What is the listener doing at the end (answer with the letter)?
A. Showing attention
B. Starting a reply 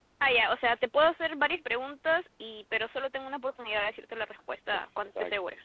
B